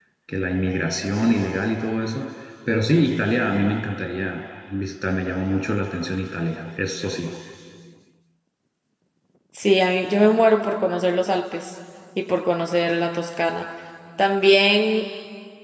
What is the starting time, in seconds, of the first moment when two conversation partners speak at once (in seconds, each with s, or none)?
none